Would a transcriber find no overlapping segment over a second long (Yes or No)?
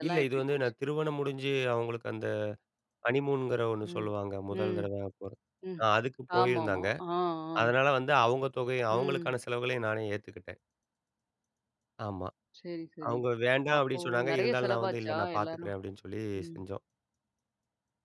No